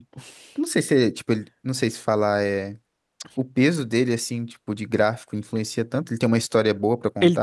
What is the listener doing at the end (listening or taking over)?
taking over